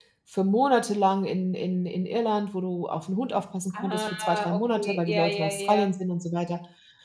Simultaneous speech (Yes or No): Yes